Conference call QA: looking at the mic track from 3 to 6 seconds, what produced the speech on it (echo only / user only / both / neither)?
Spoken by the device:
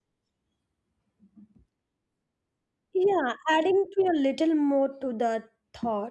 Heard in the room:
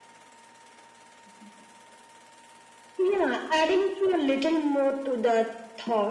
echo only